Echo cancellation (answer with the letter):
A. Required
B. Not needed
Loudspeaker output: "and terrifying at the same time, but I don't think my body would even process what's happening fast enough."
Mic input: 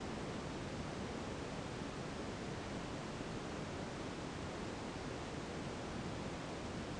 B